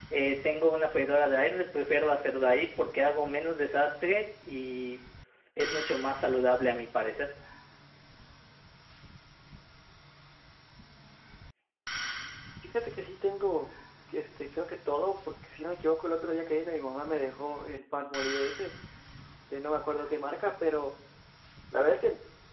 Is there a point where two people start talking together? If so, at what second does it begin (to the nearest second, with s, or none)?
none